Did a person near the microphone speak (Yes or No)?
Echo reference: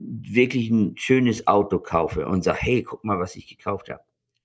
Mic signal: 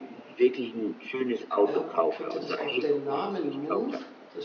Yes